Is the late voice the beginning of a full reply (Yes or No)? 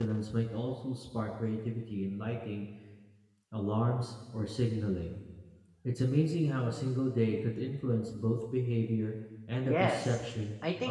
Yes